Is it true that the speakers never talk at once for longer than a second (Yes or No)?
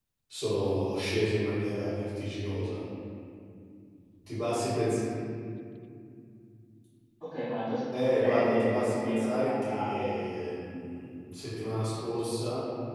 No